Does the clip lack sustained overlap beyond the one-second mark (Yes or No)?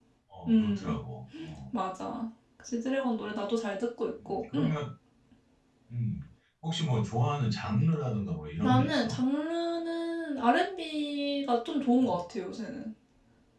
Yes